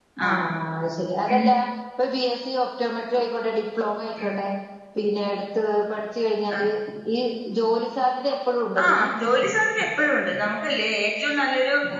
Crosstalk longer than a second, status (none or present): none